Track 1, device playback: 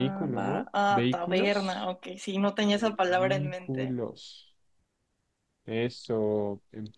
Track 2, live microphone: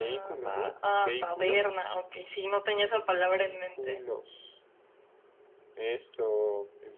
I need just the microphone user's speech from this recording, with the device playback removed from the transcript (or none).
none